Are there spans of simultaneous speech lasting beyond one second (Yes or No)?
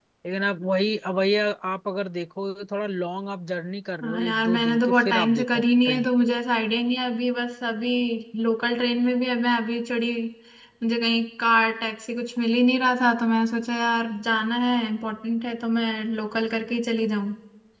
Yes